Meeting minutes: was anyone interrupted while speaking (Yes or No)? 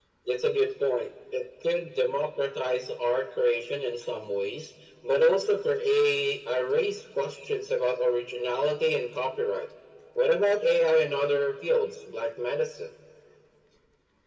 No